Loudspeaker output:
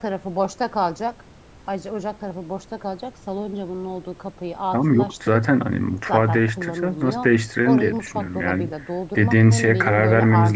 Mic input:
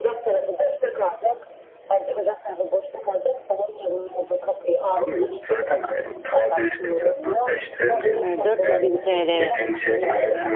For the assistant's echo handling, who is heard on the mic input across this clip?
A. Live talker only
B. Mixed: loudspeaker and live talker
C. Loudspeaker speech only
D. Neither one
B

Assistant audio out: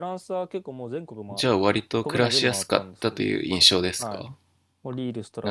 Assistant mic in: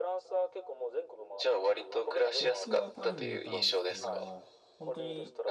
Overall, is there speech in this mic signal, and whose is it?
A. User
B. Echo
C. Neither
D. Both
D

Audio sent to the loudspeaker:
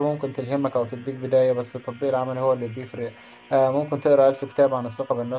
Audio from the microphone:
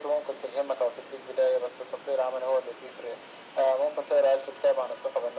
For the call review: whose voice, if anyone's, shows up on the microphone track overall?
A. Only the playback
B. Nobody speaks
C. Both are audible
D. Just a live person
A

